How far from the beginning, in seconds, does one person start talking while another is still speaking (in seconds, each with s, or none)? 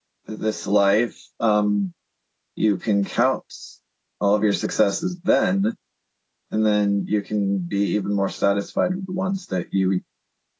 none